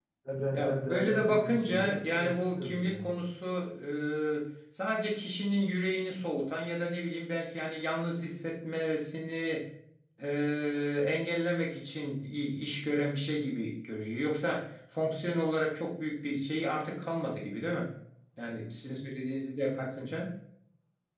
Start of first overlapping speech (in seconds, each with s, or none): 0.5 s